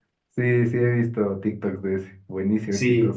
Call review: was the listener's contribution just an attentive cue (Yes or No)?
No